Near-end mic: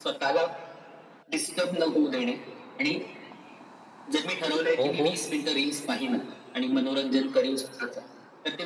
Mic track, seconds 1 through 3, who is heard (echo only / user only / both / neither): echo only